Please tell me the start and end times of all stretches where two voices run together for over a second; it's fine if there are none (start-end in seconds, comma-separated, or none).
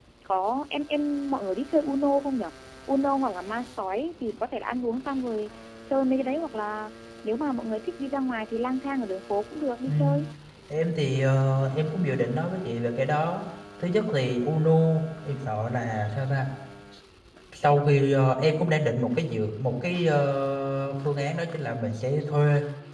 none